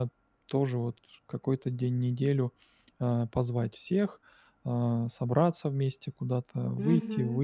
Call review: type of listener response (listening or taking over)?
listening